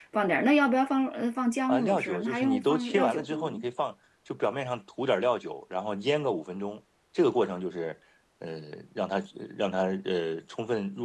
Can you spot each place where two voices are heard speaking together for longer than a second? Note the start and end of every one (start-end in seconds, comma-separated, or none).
1.7-3.4